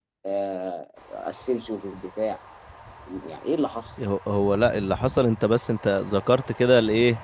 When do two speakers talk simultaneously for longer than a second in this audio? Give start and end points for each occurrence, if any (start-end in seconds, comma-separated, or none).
none